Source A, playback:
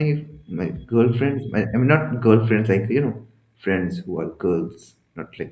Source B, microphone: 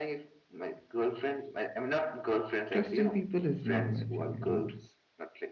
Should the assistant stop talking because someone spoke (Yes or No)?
Yes